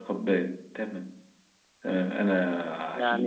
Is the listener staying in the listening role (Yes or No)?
No